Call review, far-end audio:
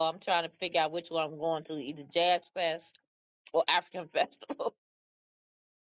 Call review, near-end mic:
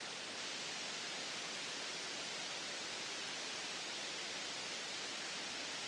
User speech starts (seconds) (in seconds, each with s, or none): none